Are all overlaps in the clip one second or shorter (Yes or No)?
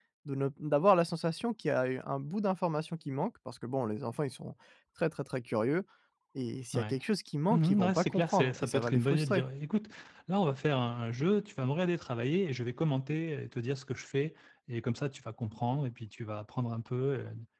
No